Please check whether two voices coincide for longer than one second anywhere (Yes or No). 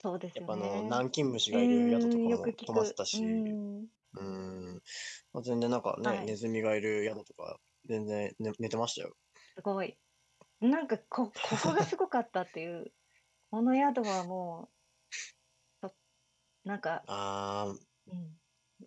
Yes